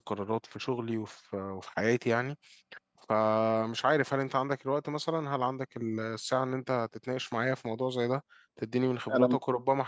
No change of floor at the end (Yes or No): Yes